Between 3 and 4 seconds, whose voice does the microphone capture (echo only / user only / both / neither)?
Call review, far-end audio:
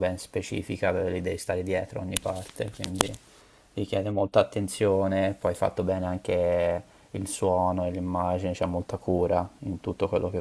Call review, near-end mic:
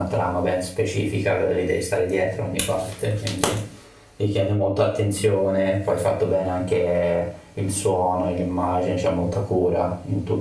echo only